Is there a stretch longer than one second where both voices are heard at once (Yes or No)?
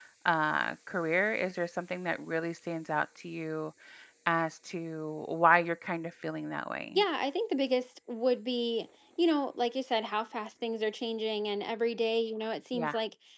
No